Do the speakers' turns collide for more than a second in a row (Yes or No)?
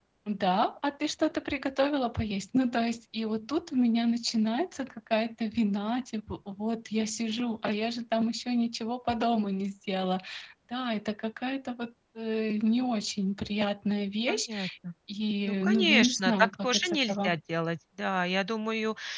Yes